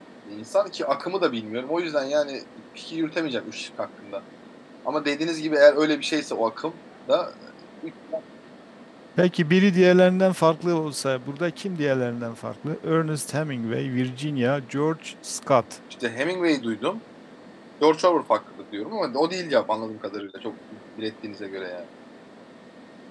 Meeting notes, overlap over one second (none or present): none